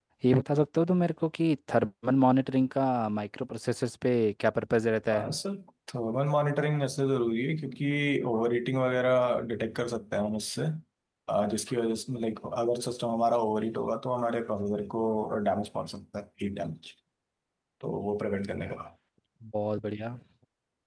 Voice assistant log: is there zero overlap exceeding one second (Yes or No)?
Yes